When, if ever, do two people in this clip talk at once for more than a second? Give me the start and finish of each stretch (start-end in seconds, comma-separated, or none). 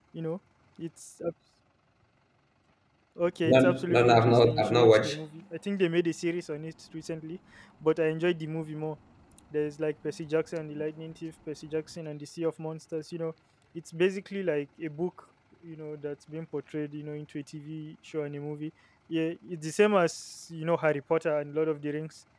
3.5-5.2